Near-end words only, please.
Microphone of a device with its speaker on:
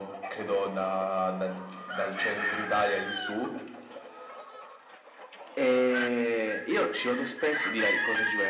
none

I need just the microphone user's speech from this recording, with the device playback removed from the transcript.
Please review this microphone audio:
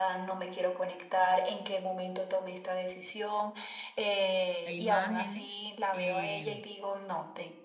e imágenes. eh,

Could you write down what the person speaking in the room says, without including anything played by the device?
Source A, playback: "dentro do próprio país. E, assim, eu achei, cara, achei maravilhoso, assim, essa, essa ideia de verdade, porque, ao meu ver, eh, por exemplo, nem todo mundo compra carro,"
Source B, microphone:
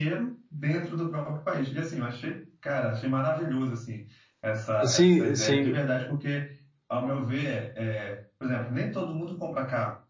Sim, sim.

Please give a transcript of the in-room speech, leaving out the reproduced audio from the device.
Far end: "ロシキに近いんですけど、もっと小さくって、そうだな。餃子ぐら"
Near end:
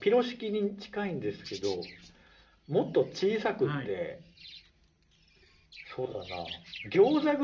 はい。

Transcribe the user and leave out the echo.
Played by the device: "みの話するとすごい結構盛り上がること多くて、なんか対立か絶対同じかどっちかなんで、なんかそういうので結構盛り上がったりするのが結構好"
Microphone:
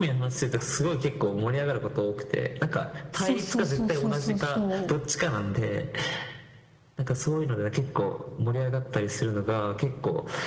そうそうそうそうそうそ

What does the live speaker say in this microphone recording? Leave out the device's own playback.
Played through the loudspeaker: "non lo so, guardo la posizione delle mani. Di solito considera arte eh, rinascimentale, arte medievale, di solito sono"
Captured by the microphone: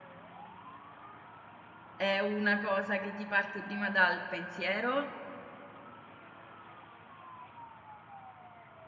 è una cosa che ti parte prima dal pensiero,

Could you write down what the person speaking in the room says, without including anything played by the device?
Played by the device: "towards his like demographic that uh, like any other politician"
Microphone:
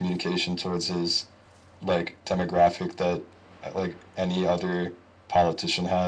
none

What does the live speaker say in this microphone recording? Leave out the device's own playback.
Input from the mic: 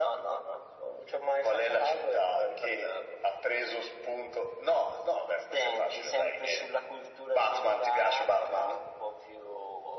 none

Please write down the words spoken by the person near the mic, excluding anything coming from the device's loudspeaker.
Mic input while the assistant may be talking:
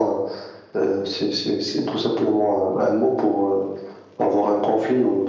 none

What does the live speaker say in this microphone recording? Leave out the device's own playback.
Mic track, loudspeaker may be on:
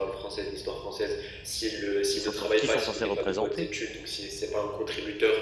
ils sont, qui sont censés représenter.

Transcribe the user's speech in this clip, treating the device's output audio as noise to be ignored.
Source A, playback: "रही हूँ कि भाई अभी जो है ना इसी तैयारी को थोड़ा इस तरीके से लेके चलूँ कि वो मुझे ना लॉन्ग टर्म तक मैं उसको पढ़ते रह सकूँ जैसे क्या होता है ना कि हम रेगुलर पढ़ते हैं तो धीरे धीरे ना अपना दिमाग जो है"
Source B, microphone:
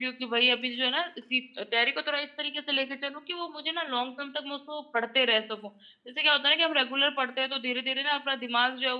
none

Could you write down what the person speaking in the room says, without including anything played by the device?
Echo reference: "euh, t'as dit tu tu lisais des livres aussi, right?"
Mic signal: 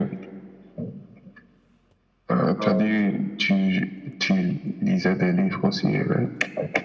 Ah, ok.

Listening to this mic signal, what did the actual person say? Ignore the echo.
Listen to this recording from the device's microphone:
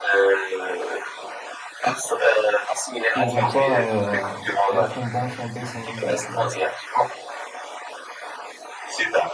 je pourrais pas euh, être en bonne santé sans la salle, tu vois.

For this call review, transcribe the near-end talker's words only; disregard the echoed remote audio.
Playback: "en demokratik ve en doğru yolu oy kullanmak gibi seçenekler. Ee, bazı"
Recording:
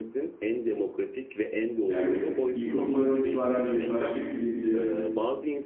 Yani ilkokuldan itibaren yurttaşlık bilinci,

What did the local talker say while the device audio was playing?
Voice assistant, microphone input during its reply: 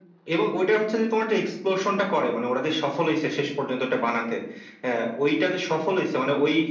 none

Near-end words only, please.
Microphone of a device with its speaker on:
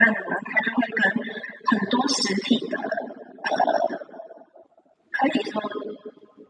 none

